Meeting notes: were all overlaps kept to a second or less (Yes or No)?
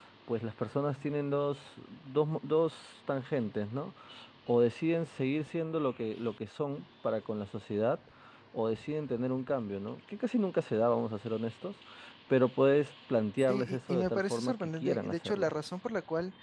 No